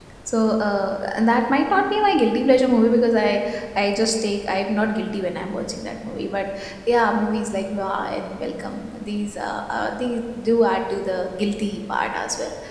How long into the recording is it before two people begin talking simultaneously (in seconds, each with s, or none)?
none